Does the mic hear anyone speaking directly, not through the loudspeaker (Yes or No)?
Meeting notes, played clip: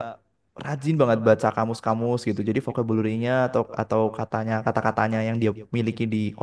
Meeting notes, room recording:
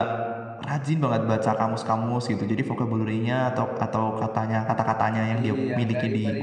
Yes